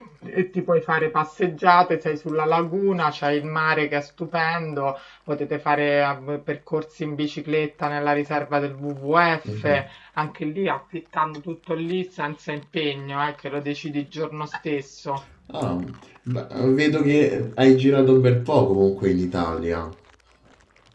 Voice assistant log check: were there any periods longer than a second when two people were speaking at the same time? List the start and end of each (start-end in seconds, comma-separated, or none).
none